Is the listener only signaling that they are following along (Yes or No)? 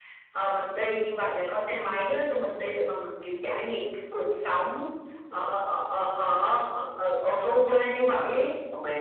No